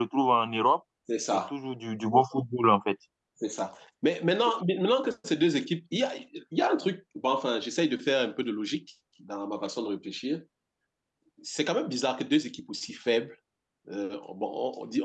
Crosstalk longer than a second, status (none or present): none